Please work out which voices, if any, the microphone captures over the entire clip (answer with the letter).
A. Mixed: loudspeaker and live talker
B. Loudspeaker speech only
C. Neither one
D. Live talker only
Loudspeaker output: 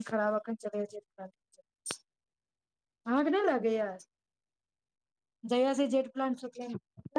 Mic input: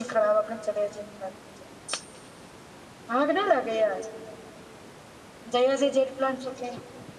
B